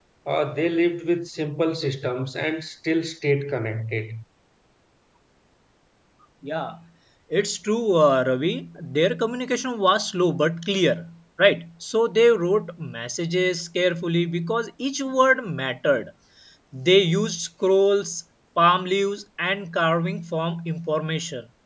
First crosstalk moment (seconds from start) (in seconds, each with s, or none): none